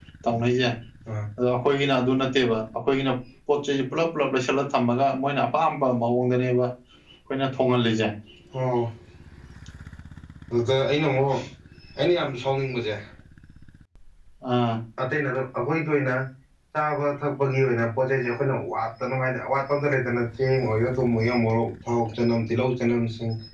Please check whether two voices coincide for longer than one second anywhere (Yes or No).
No